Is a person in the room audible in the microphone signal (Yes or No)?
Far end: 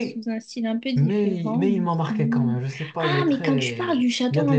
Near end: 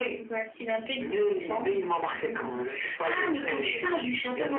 No